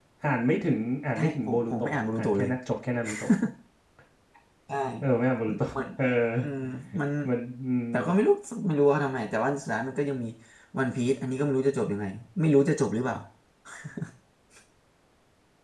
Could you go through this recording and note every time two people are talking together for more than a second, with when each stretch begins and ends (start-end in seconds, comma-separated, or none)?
1.2-2.5